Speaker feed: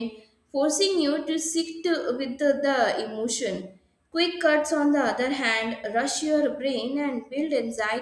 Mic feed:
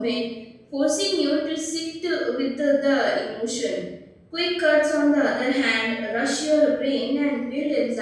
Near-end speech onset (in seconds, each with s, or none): none